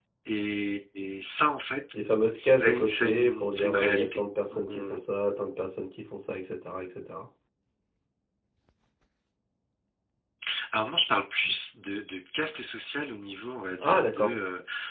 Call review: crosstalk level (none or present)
present